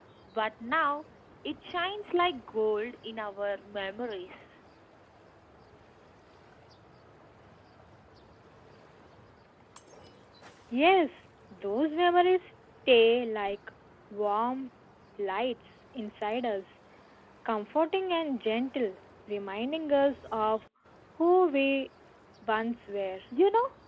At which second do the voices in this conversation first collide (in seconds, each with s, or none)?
none